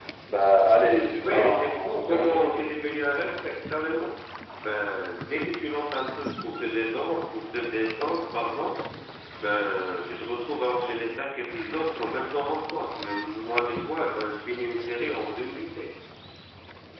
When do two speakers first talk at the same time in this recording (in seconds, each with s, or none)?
1.2 s